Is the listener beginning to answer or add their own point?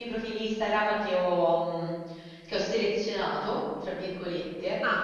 No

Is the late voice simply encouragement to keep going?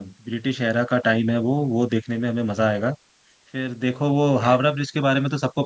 Yes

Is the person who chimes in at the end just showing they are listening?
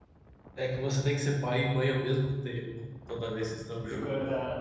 No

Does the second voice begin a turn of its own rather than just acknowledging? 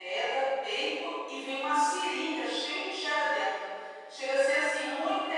No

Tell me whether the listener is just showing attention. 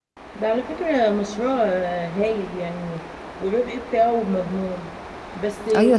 No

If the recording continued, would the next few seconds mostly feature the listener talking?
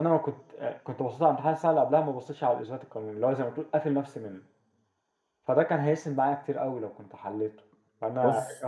No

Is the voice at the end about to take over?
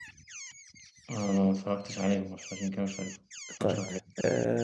Yes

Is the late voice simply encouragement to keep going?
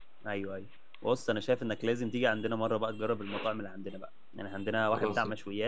Yes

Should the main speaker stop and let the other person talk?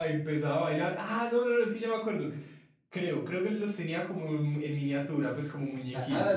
Yes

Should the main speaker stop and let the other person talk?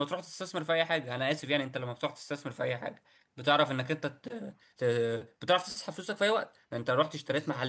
No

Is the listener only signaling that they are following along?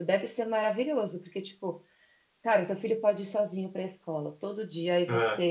Yes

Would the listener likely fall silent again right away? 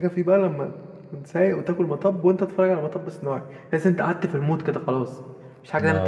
No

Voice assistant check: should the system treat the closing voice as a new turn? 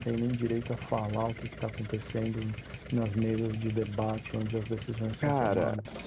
Yes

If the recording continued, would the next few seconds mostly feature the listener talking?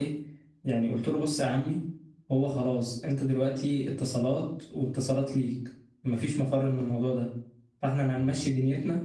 No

